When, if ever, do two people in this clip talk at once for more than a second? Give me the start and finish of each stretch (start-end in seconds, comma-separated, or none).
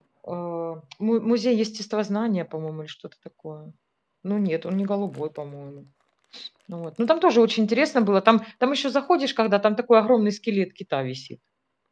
none